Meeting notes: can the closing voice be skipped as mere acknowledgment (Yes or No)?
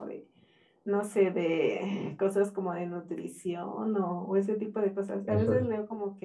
Yes